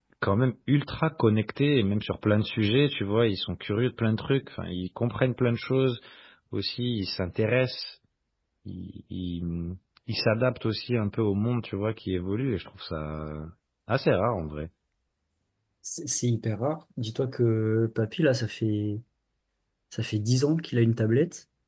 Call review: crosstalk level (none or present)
none